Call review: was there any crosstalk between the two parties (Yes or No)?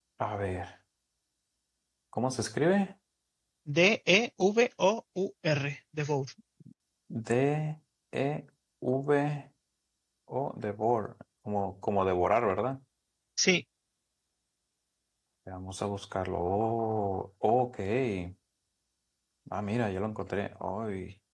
No